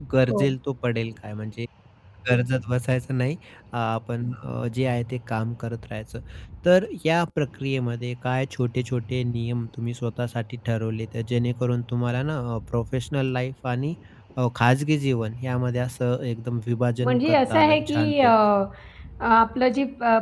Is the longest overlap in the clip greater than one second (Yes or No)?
Yes